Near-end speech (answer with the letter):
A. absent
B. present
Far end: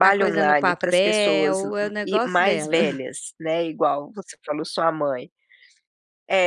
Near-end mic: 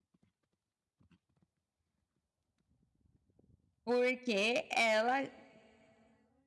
B